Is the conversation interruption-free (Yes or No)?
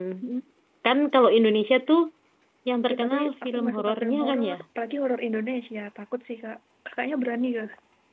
No